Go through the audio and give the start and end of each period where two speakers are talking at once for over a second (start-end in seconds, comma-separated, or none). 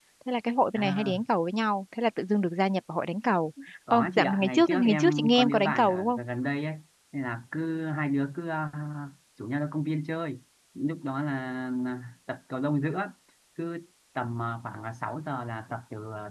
3.9-6.2